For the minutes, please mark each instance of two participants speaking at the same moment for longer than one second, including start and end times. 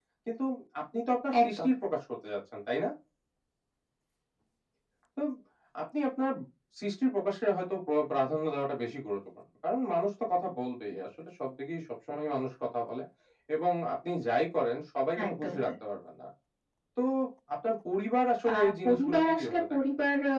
18.5-19.8

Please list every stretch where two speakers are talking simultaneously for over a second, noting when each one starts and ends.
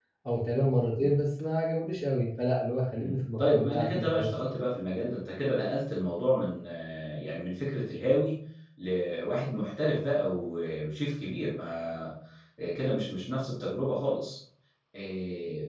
3.0-4.3

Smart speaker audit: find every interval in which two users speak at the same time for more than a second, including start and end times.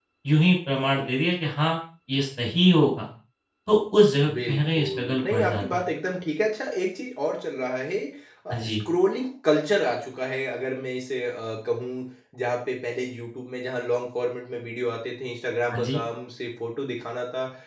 4.5-5.8

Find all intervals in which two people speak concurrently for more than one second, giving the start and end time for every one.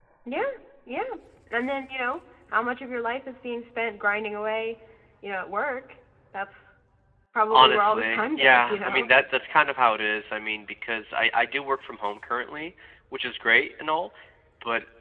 7.5-9.1

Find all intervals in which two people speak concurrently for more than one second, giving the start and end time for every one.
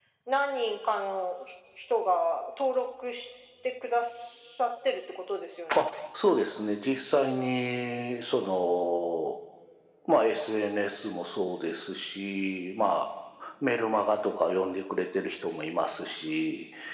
none

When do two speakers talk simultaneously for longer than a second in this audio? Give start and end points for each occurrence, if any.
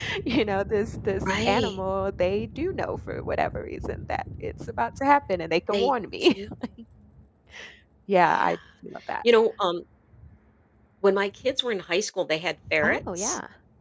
none

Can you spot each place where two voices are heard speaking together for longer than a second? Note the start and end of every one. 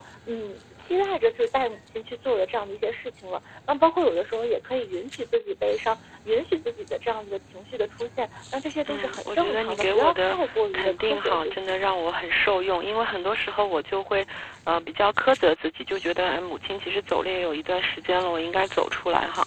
8.9-11.7

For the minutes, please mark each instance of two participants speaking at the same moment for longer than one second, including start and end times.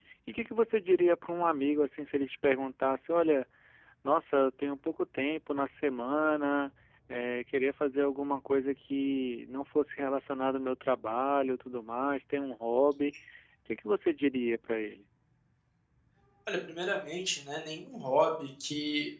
none

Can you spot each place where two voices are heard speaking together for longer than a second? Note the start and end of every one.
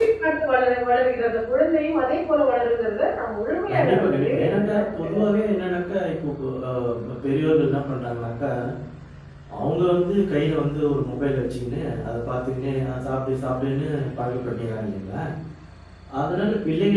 3.7-5.6

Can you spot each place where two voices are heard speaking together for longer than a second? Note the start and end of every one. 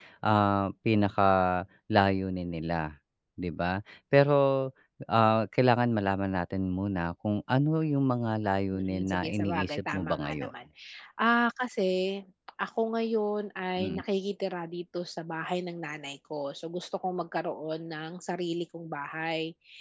8.7-10.5

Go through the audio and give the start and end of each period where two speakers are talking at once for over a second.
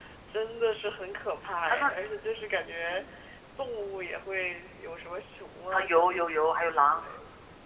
none

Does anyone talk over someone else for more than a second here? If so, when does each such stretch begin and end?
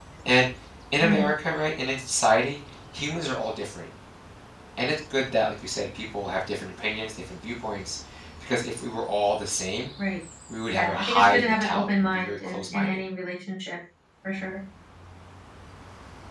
10.7-13.0

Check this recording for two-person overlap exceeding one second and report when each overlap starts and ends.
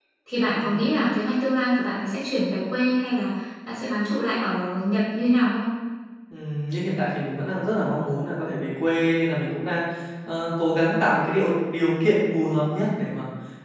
none

